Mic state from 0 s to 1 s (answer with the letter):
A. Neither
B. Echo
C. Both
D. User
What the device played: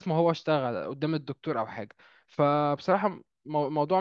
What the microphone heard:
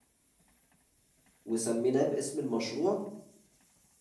A